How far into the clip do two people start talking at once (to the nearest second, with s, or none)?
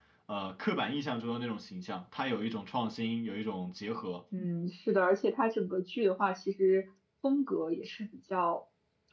none